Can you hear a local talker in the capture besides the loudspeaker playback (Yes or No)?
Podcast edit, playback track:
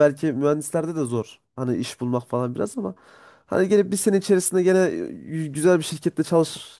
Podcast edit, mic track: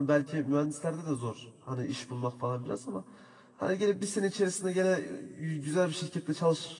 No